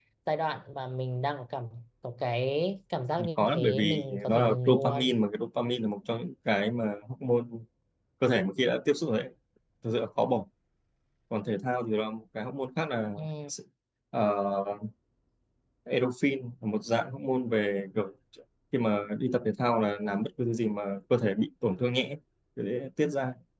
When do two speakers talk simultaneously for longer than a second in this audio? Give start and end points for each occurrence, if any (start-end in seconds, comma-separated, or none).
3.4-5.1